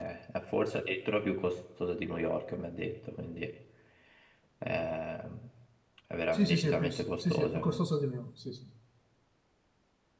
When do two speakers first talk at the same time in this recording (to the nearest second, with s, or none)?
6 s